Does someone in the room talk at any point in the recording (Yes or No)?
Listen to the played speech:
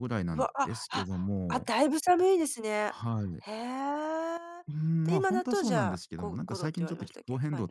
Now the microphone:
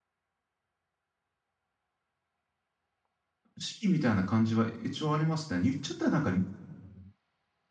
Yes